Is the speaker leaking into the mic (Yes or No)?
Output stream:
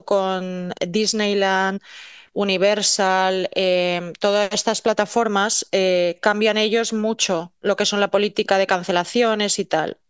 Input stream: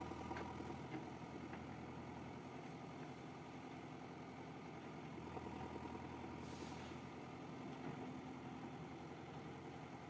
No